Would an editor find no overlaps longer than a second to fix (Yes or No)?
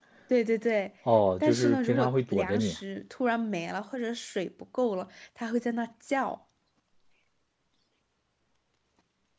No